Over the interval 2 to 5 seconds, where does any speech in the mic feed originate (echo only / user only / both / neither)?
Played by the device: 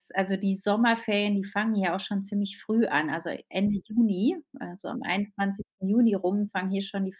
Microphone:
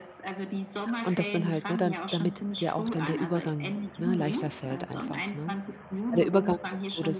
both